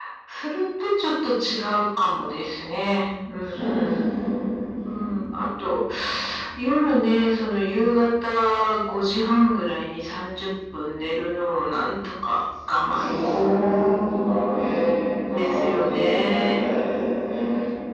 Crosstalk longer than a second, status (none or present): present